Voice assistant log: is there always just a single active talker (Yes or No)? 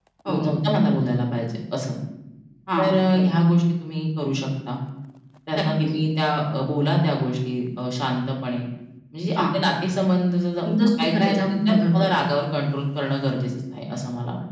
No